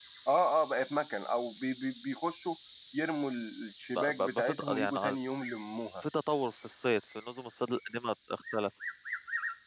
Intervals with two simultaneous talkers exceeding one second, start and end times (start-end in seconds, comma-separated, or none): 4.0-5.2